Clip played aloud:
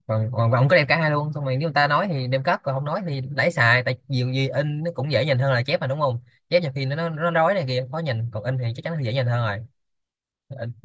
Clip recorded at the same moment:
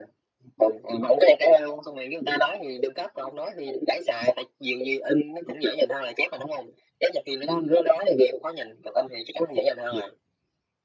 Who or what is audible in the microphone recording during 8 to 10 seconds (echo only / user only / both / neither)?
echo only